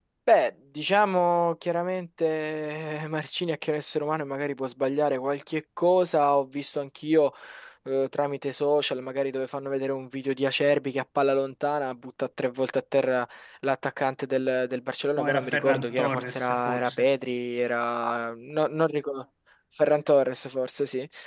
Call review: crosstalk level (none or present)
present